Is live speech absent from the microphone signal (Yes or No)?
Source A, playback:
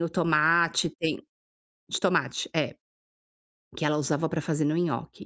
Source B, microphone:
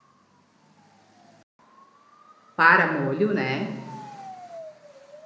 No